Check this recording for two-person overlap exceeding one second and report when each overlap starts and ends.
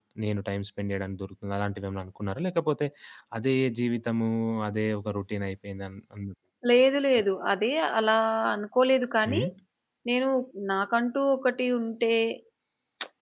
none

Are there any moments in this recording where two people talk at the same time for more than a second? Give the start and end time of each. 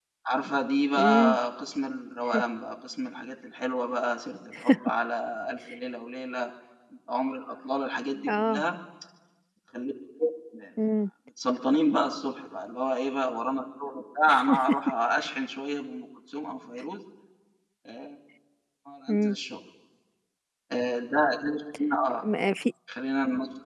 none

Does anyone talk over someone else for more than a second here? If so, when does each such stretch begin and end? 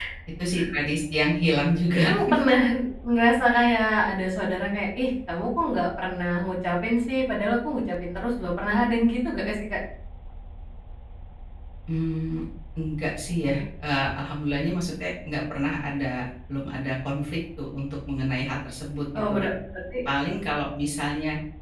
none

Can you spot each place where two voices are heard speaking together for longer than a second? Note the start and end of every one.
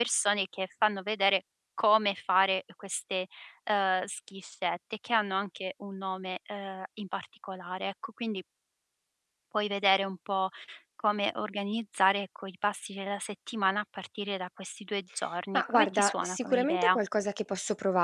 15.5-17.0

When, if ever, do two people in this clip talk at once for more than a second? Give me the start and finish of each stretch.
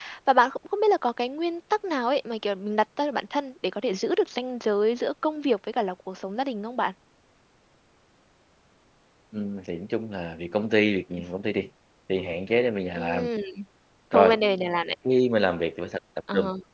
none

